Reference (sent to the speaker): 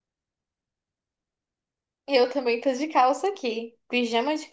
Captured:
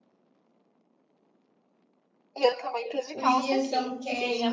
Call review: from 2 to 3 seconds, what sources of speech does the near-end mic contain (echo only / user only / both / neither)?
echo only